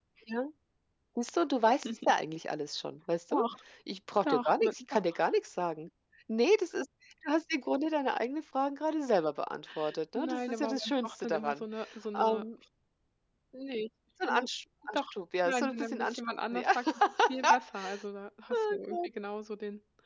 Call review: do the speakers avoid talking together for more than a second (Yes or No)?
No